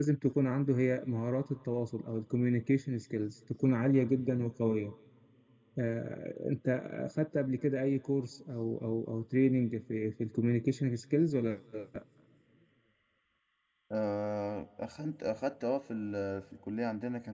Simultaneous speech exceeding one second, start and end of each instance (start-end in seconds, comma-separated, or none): none